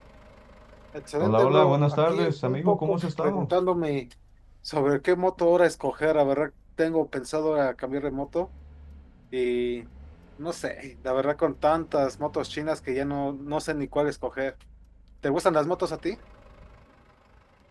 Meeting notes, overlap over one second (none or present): present